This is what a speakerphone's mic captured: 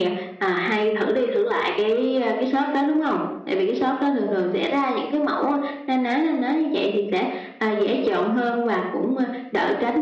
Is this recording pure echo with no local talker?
Yes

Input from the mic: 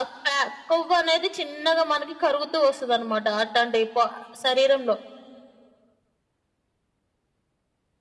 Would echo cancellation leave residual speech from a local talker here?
No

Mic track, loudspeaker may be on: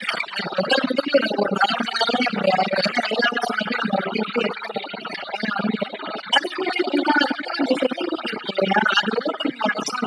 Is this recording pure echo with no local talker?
Yes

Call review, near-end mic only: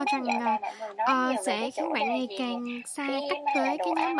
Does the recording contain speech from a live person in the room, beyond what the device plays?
Yes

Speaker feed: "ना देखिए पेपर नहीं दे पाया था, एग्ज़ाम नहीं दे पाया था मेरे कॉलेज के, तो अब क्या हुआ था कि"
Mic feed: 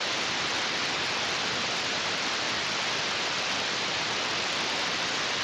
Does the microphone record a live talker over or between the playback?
No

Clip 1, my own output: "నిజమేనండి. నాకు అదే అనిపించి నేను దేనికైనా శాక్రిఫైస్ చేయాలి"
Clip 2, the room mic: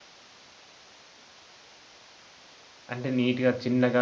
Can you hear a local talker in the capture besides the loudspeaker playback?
Yes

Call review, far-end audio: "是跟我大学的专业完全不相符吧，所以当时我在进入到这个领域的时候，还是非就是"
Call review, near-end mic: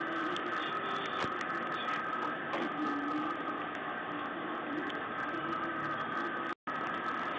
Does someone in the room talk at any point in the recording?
No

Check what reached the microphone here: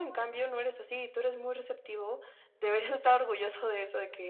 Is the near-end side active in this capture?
No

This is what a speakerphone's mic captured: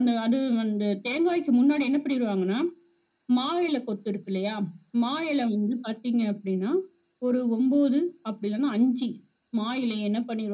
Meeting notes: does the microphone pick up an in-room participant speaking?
No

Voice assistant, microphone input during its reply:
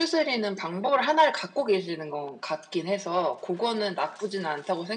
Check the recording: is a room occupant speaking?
No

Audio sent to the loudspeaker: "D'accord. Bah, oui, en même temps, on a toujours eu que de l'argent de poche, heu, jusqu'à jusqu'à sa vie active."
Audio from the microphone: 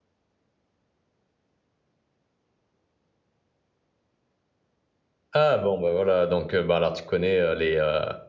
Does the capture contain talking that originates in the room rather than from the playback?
Yes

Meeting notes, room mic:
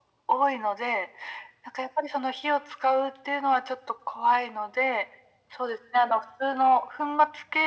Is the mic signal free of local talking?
Yes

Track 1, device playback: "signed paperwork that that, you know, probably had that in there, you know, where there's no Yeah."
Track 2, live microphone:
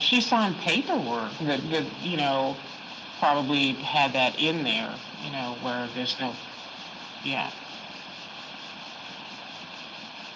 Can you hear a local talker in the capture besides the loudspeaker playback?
No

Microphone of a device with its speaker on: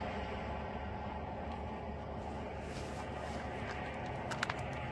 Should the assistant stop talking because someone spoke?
No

